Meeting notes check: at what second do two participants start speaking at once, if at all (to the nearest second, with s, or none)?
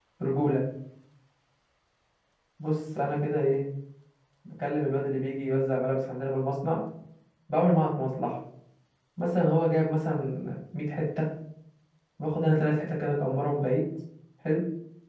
none